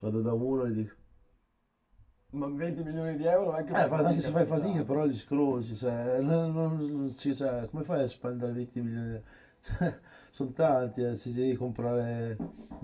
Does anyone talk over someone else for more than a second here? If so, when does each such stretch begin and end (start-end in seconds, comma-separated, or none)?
3.7-5.1